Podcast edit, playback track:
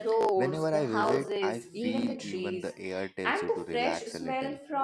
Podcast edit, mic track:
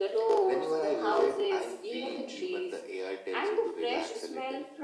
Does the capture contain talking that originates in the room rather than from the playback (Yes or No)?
No